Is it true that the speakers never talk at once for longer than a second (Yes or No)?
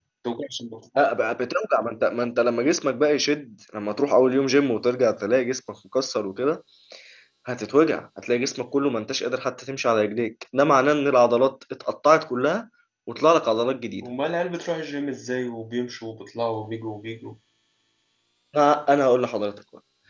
Yes